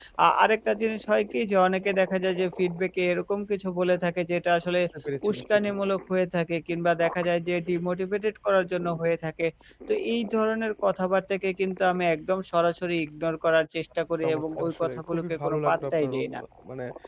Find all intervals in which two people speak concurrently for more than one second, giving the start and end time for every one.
14.2-16.3

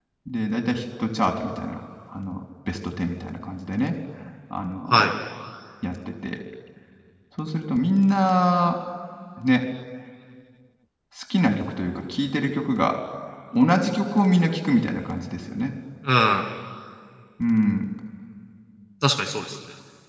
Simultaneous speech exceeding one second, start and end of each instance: none

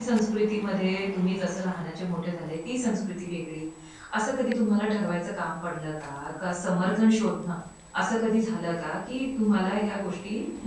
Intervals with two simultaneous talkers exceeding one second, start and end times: none

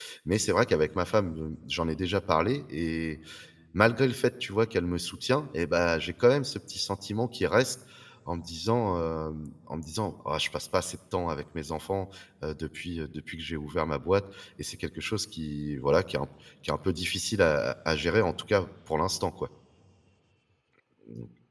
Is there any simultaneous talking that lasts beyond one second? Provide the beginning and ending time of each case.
none

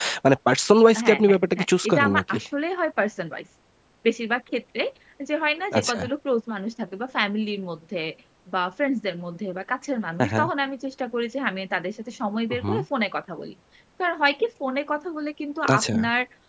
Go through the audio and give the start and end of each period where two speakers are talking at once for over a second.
1.0-2.4

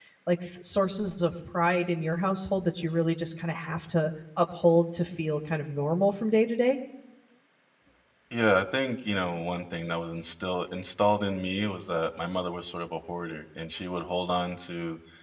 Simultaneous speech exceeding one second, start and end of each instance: none

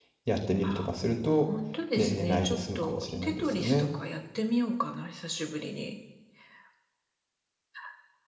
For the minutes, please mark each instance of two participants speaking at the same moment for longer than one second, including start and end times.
2.0-3.9

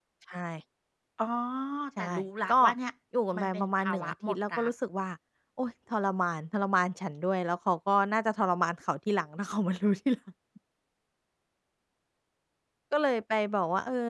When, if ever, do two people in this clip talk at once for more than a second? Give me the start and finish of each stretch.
3.4-4.7

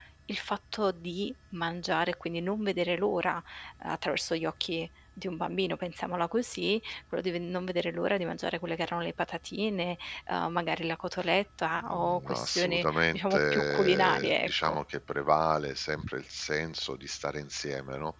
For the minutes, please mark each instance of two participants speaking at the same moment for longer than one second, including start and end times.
11.8-14.8

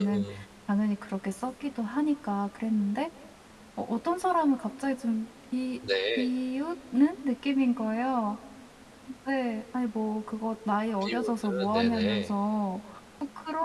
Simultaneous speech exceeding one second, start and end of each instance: 11.0-12.3

